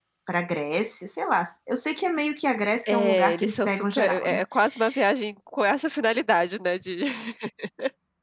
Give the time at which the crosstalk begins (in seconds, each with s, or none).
2.9 s